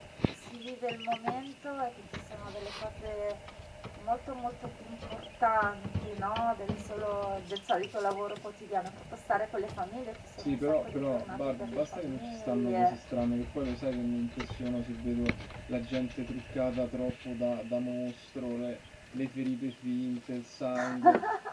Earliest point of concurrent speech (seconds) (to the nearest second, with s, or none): 10 s